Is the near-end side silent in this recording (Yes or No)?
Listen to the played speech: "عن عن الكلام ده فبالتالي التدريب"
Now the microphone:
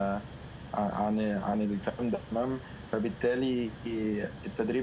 Yes